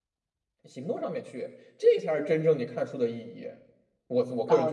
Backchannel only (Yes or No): No